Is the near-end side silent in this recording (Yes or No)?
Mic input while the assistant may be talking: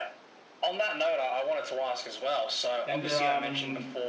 No